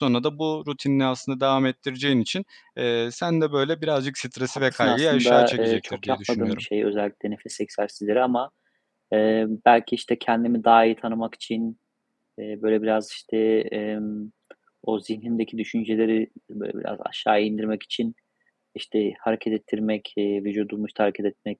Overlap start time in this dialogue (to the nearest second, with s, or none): 5 s